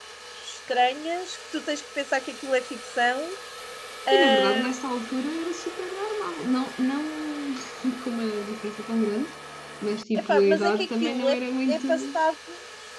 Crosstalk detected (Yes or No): Yes